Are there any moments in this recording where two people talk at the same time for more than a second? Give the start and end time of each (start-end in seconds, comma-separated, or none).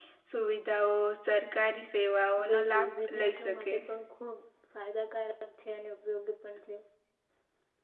2.5-3.7